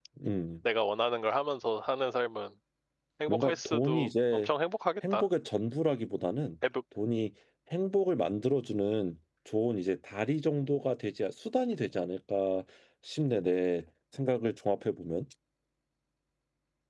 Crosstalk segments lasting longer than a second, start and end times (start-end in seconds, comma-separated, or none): 3.3-4.5